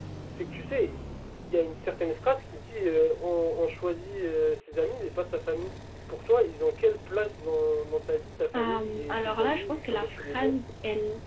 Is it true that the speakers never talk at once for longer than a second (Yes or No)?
No